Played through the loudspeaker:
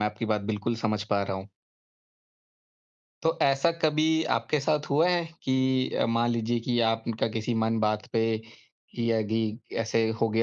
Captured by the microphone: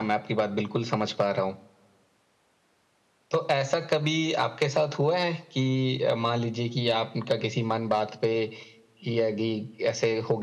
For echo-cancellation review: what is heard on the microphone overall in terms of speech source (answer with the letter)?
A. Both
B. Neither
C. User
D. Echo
D